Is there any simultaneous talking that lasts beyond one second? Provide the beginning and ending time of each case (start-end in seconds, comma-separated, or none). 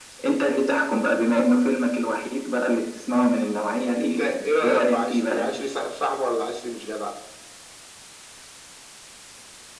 3.8-5.5